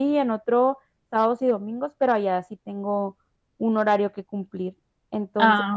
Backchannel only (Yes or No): Yes